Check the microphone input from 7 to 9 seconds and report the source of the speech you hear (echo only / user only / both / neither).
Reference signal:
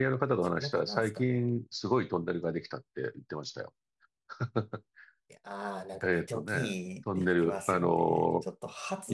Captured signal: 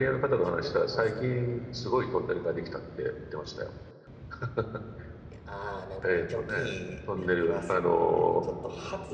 echo only